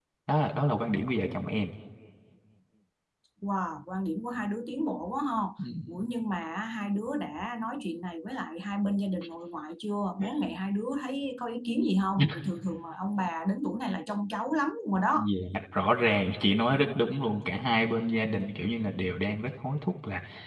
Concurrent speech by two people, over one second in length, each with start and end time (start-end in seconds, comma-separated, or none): none